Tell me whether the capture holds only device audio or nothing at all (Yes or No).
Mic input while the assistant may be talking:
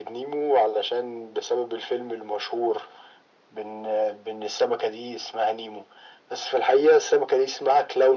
Yes